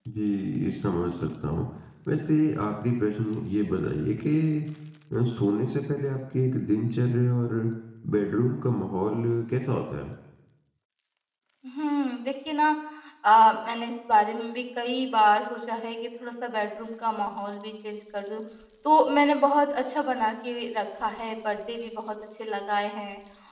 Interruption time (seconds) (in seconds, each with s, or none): none